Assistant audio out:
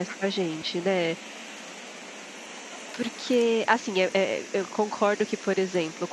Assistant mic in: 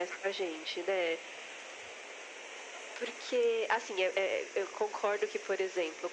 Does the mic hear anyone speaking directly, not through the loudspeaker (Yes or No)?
No